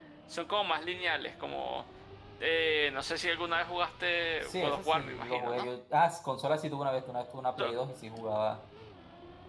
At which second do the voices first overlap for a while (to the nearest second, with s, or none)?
4 s